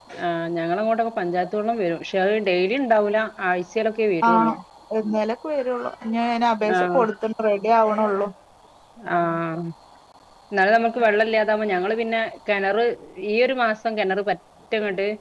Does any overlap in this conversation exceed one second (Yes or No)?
No